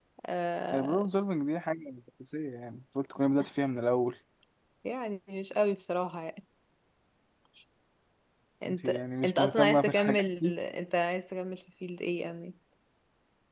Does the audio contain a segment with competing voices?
Yes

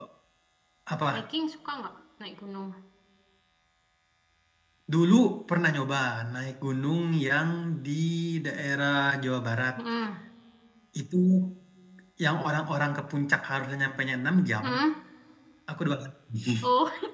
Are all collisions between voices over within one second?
Yes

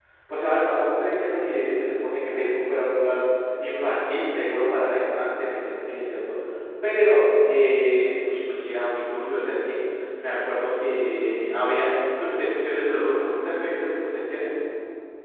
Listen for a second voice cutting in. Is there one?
No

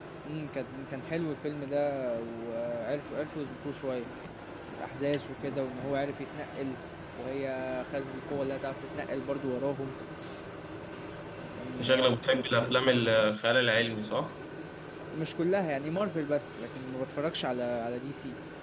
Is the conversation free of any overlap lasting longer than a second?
Yes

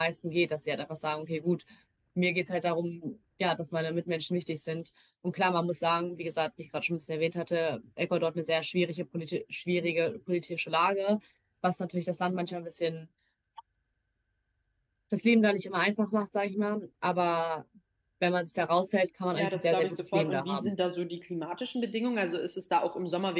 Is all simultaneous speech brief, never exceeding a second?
No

